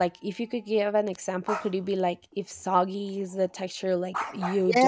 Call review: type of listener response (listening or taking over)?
taking over